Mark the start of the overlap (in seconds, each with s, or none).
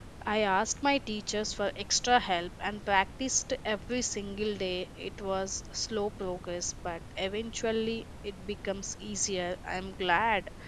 none